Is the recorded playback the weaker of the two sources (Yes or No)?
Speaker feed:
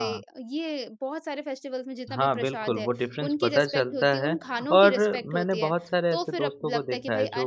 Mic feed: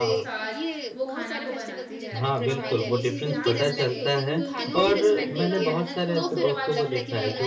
No